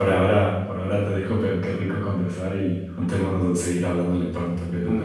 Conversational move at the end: taking over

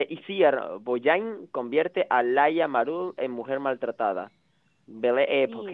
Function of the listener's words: listening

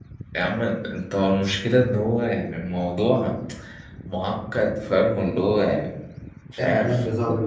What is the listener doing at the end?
taking over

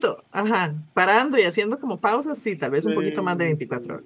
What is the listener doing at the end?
taking over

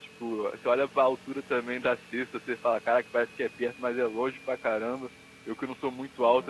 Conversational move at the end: listening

